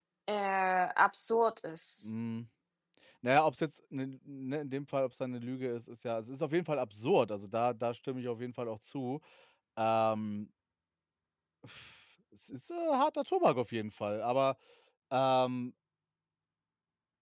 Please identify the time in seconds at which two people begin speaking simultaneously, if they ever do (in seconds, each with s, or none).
none